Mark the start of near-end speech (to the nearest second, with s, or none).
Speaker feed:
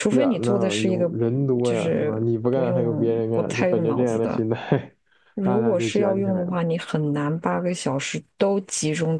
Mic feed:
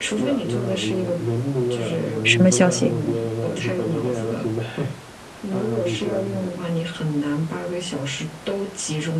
2 s